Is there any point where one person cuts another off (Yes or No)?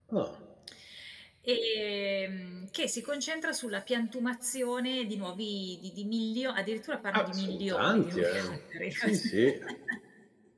Yes